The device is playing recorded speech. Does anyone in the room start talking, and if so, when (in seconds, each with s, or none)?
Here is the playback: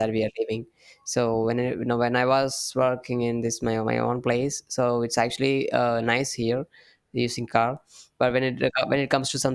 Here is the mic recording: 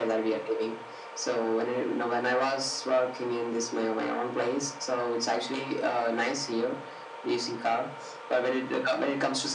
none